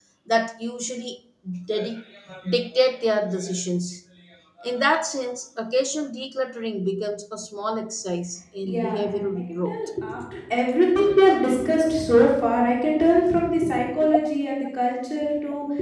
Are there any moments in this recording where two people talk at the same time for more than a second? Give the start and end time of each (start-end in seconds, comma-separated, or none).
8.6-9.9